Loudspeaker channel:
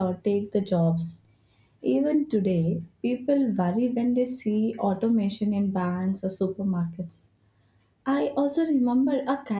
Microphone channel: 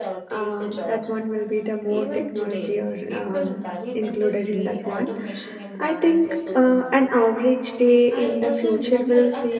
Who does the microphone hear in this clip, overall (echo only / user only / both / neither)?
both